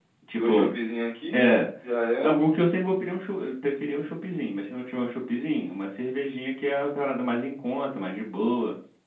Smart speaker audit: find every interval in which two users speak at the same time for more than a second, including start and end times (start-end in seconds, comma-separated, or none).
none